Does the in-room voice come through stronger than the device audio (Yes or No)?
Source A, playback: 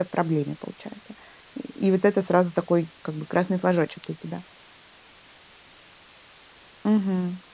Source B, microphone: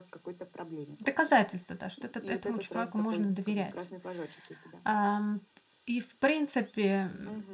Yes